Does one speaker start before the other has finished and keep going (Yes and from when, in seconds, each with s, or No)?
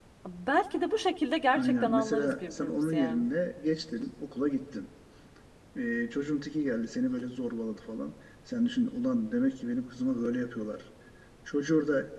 Yes, from 1.6 s